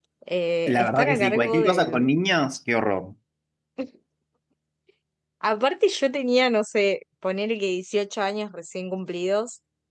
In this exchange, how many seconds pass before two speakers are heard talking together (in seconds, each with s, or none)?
0.7 s